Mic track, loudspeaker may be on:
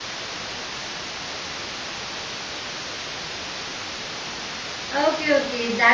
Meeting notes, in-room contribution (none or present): present